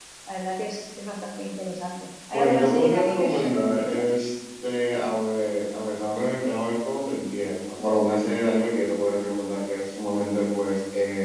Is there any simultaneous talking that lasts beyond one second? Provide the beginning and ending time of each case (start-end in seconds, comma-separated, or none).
2.3-4.0